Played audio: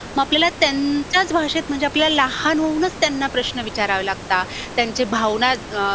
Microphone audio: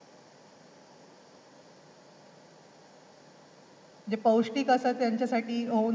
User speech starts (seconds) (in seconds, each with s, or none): 4.1 s